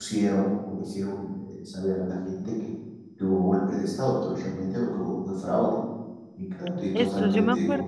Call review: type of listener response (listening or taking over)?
taking over